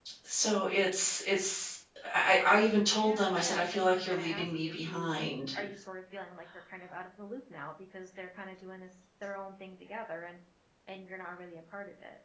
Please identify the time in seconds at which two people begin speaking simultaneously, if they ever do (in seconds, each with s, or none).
2.9 s